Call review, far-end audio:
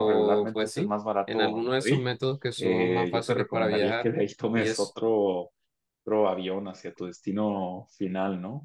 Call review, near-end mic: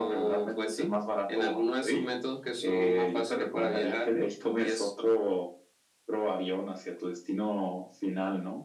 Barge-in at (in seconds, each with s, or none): none